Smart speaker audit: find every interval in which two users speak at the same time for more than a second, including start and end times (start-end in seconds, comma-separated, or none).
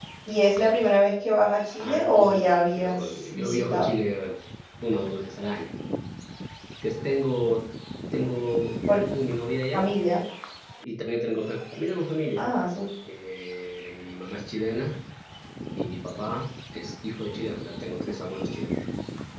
1.8-3.9